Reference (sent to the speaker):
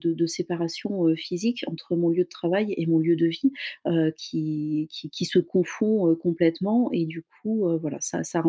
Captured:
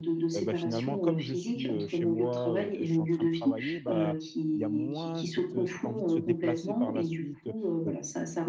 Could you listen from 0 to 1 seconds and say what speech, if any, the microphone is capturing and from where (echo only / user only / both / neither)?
both